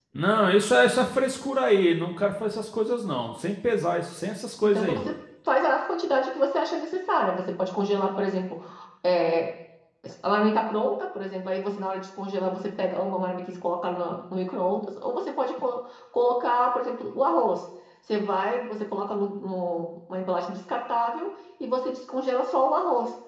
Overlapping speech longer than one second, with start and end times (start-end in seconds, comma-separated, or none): none